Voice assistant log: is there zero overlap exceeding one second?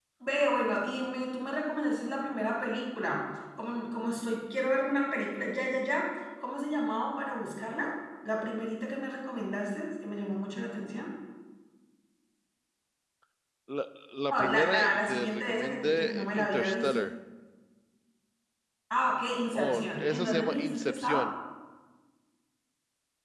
No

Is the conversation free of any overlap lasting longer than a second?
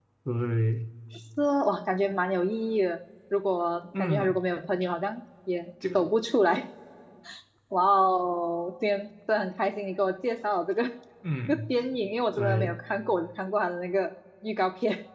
Yes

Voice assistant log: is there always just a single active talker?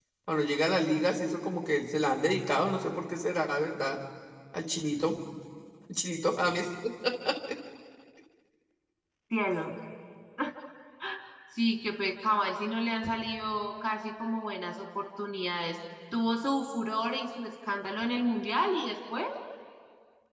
Yes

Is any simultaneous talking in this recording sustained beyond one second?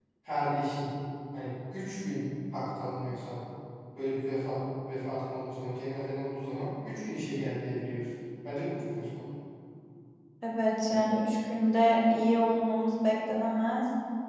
No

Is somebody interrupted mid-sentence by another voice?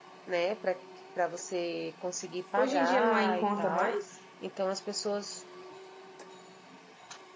Yes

